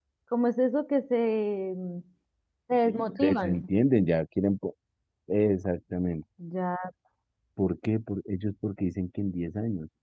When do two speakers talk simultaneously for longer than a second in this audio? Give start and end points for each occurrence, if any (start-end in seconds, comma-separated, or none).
none